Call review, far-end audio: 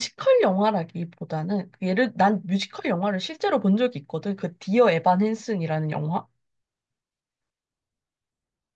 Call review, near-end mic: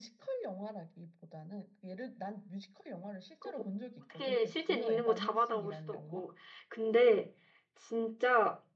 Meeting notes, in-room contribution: present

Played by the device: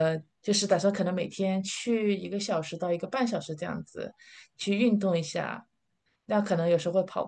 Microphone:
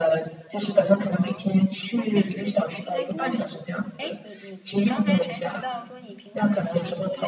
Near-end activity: present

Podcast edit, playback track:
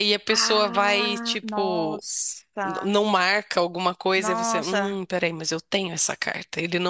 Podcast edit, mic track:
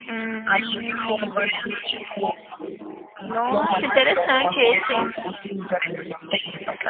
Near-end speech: present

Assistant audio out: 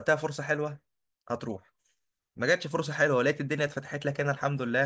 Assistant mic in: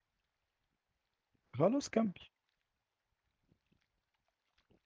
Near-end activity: present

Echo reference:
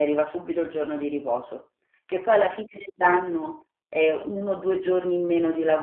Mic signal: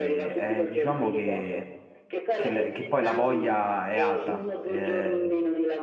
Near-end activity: present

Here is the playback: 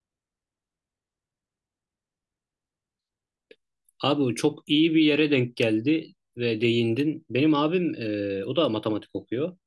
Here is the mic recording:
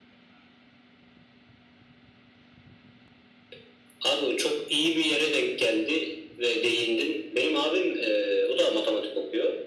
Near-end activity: none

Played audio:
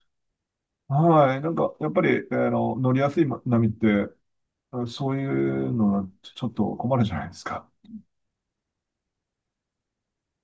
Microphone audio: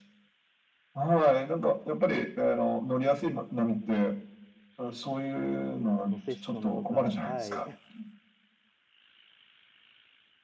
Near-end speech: present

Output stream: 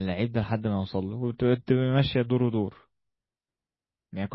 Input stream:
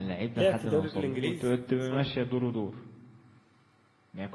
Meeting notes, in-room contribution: present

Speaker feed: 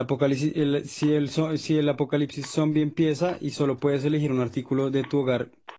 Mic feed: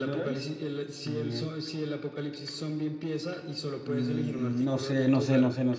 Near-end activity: present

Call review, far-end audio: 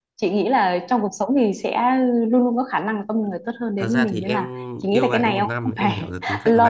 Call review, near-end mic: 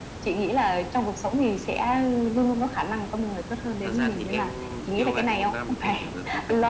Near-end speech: none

